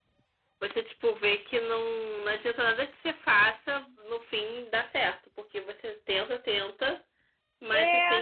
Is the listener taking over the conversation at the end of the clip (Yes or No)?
No